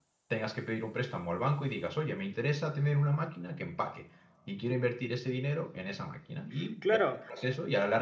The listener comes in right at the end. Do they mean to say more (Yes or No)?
No